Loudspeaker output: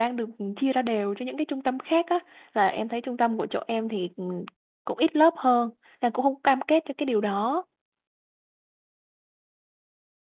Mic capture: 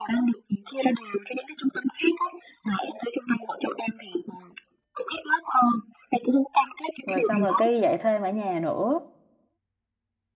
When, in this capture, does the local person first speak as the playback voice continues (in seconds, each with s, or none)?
7.0 s